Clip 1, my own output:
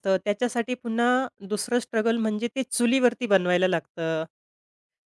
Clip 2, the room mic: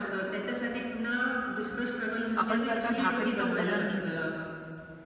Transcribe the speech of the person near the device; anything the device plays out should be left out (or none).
आपण जर का भाकरीचं उदाहरण घेतलं,